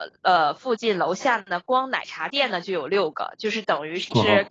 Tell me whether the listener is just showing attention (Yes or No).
Yes